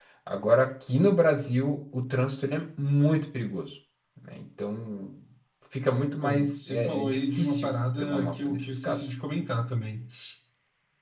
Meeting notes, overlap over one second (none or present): present